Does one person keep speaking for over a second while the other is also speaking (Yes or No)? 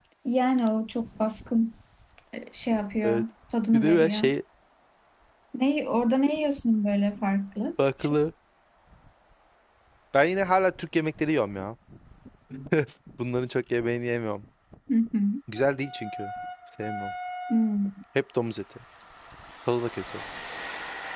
No